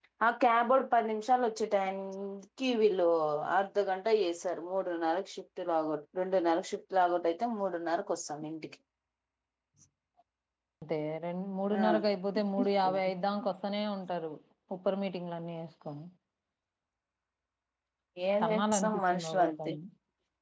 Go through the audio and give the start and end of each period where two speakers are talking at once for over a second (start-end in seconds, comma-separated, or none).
18.4-19.7